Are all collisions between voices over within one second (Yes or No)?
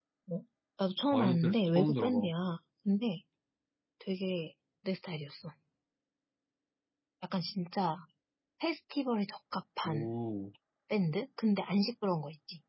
No